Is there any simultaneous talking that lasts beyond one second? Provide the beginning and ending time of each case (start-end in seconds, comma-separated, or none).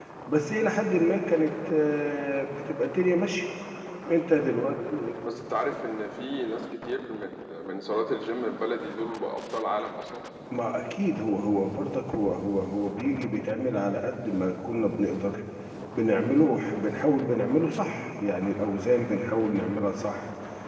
none